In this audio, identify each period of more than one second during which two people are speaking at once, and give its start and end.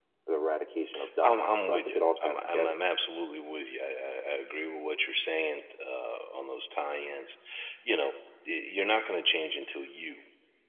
1.2-2.8

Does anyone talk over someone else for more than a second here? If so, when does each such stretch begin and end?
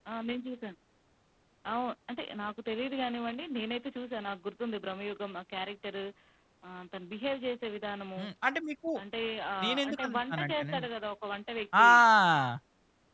9.6-10.8

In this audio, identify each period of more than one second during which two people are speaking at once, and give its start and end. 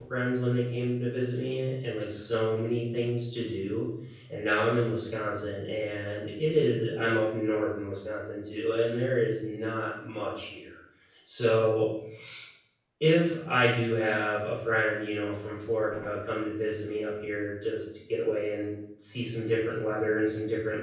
none

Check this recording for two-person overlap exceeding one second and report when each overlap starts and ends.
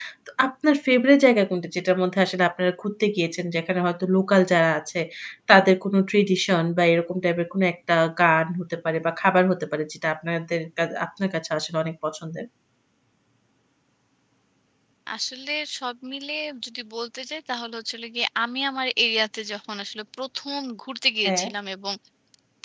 none

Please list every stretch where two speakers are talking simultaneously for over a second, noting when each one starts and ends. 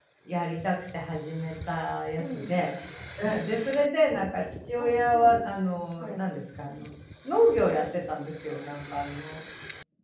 4.8-6.2

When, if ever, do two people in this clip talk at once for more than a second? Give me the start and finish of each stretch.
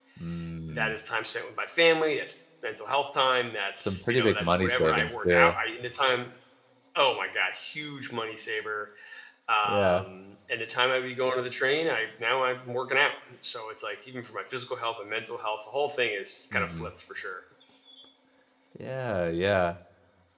3.8-5.5

